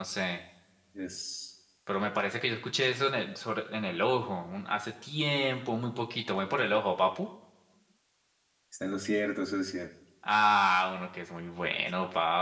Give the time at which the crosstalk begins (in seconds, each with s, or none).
none